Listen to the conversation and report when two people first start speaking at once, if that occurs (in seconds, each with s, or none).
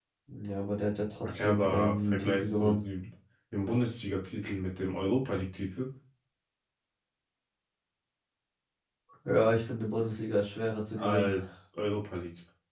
1.2 s